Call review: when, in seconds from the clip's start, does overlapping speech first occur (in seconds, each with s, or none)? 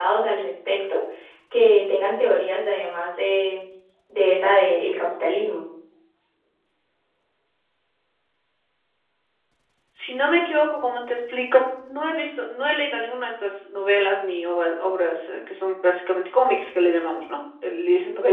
none